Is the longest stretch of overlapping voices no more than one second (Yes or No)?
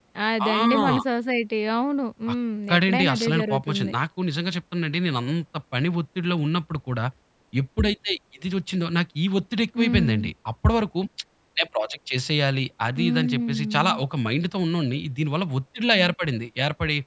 No